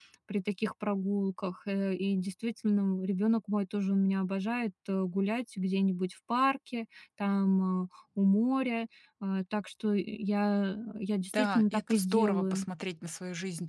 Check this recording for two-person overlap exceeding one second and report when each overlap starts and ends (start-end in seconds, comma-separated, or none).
11.3-12.7